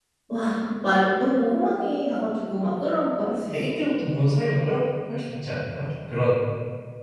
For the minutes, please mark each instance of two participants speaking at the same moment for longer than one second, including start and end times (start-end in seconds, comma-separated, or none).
none